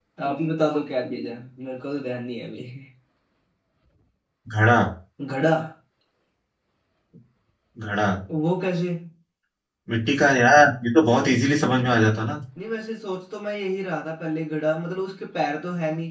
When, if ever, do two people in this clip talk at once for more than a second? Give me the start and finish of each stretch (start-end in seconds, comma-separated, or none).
none